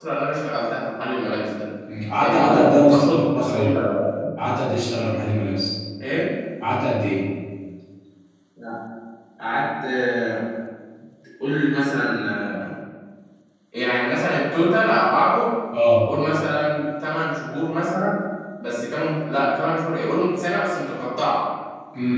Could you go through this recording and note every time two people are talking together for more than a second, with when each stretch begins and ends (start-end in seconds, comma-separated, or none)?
2.2-3.8